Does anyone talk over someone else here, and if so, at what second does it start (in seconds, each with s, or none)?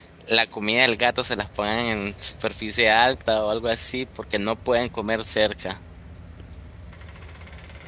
none